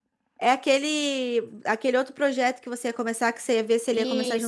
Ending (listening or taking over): taking over